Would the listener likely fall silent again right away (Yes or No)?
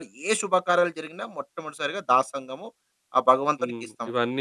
No